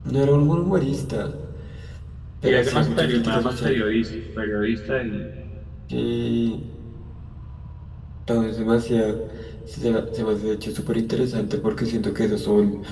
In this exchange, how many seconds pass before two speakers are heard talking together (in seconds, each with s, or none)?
2.4 s